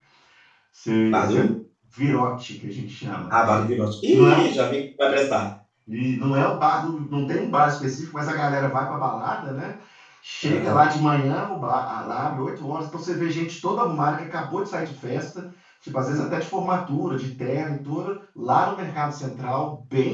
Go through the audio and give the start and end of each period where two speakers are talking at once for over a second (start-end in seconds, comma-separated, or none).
none